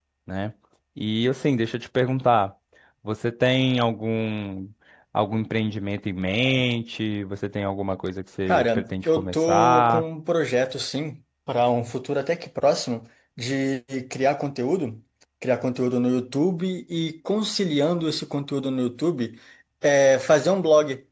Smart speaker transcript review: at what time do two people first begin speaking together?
8.5 s

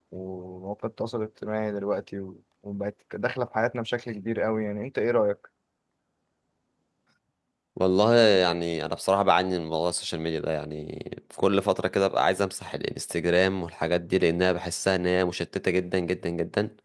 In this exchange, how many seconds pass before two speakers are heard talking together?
none

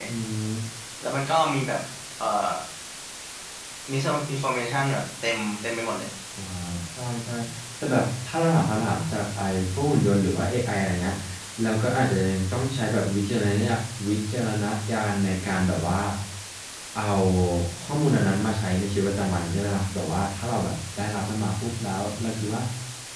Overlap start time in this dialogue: none

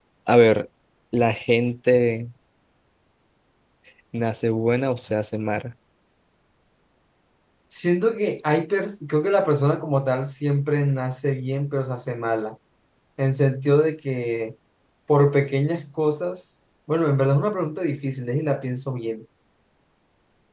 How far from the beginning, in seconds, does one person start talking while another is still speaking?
none

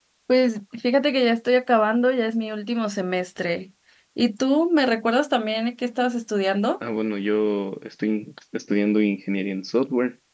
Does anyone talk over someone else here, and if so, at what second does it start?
none

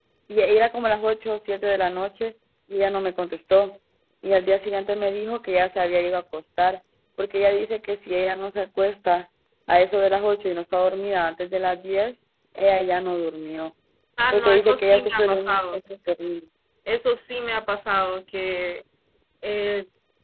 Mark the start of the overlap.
14.3 s

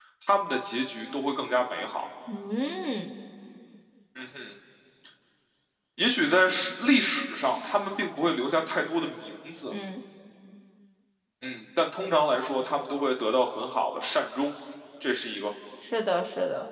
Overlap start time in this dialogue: none

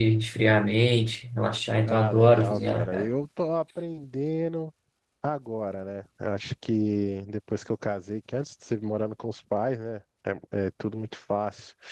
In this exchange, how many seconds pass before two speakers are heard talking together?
1.9 s

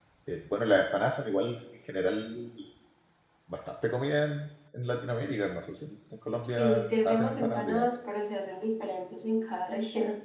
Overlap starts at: 6.4 s

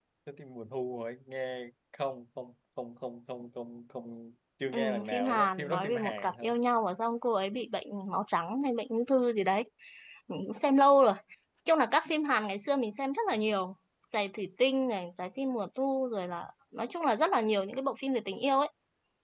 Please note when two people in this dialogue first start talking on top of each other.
4.7 s

